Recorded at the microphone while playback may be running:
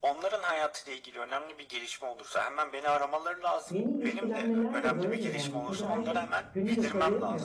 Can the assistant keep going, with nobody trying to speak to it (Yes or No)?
No